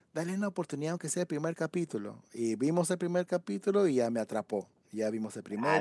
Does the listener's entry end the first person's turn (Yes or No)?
Yes